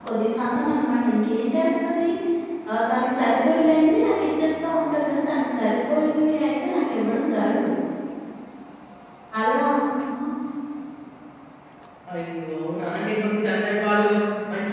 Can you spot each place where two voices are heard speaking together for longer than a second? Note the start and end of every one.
none

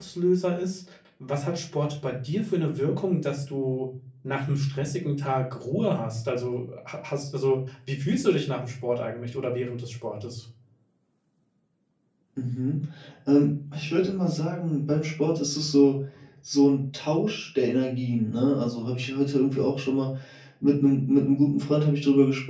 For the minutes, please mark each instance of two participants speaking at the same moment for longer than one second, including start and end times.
none

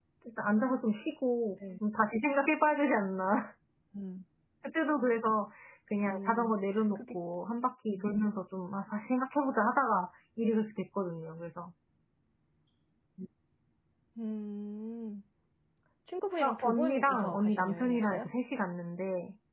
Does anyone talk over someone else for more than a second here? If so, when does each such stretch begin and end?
16.4-18.3

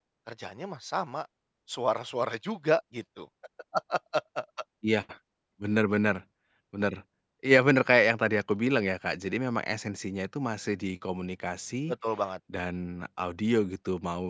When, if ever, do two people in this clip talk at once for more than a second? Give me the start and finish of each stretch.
none

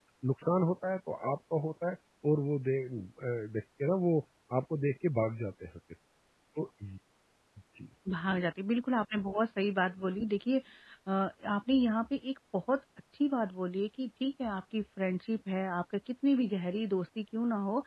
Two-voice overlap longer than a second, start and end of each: none

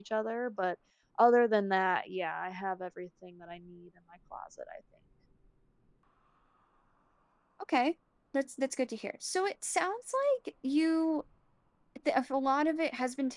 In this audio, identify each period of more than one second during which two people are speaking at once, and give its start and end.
none

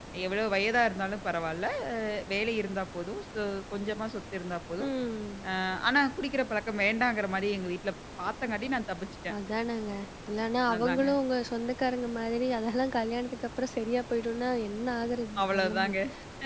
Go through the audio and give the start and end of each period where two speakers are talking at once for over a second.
none

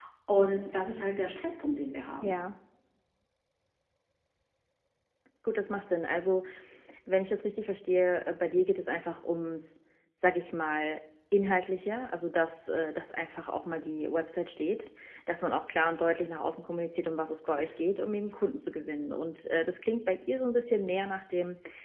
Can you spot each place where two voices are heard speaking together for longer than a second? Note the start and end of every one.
none

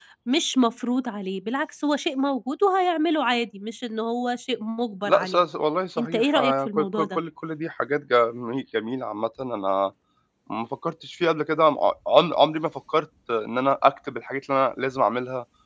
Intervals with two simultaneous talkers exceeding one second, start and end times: 6.0-7.2

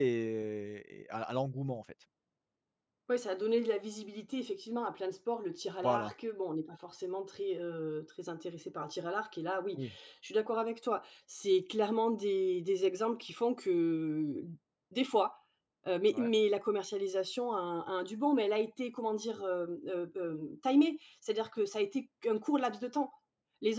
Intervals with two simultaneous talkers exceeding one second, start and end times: none

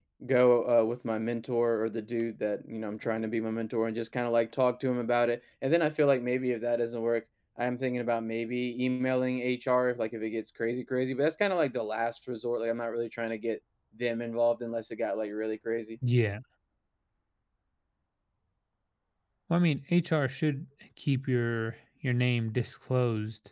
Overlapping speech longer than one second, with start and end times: none

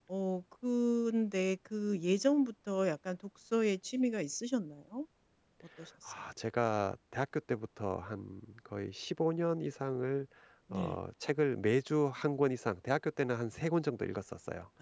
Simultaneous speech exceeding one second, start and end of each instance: none

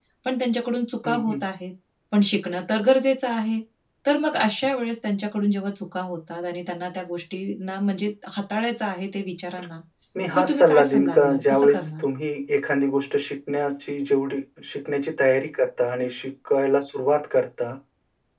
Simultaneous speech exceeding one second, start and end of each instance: 10.3-12.0

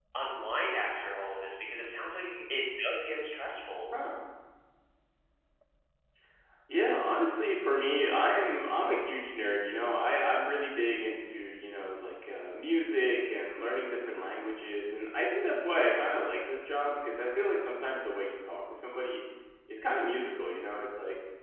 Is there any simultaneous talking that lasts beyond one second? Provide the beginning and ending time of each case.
none

